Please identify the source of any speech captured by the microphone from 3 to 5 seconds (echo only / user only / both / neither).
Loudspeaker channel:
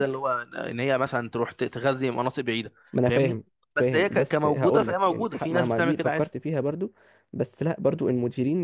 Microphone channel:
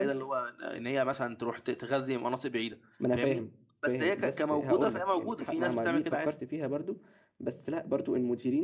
echo only